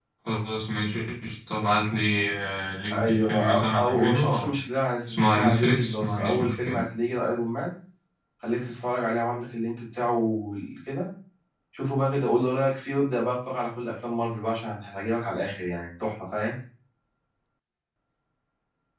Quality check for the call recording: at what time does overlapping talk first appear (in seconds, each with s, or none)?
2.9 s